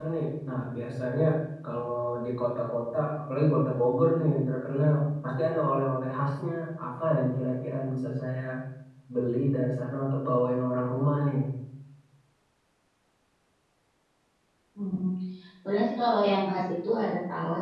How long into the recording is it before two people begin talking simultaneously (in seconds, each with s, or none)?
none